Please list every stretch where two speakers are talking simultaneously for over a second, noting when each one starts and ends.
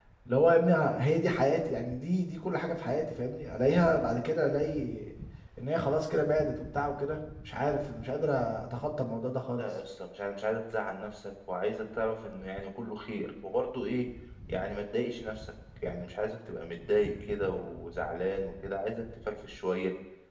none

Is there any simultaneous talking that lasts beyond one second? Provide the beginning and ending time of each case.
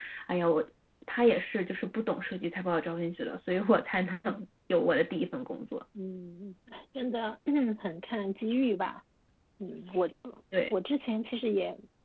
none

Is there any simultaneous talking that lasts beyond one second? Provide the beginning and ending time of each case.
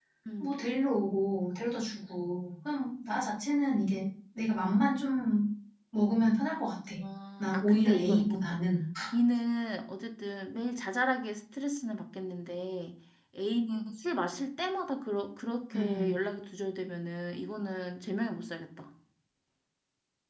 7.4-8.6

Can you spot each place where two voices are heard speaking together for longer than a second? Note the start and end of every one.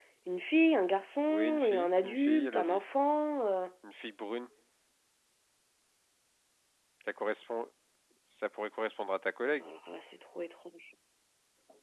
1.3-2.8

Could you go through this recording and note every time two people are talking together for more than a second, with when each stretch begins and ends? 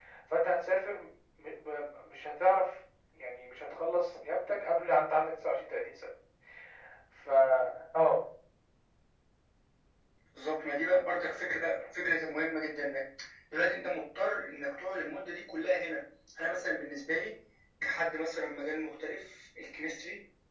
none

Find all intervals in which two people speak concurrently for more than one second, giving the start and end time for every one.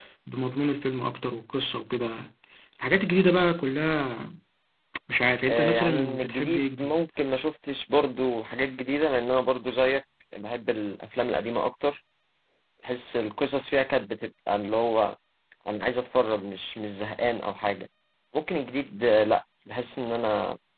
5.5-7.0

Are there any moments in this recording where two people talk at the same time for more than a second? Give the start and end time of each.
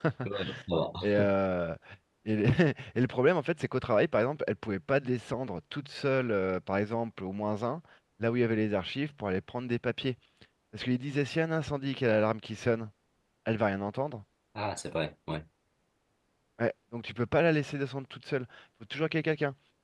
none

